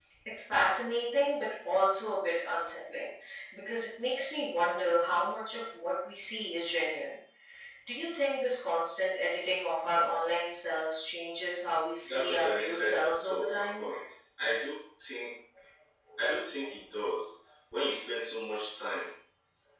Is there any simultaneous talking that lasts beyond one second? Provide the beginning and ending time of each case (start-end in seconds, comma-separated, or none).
12.0-13.9